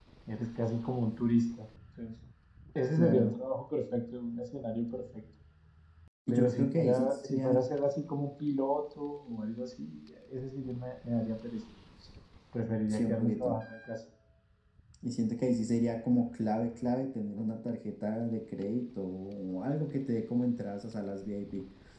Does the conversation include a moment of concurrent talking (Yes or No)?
Yes